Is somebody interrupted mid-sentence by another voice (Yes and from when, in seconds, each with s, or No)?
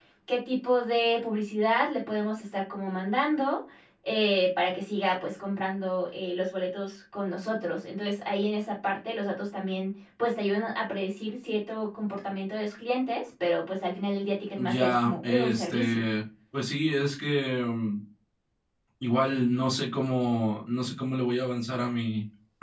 Yes, from 14.6 s